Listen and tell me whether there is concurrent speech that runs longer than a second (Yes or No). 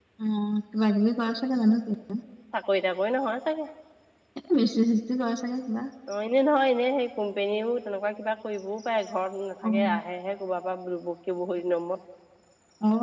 No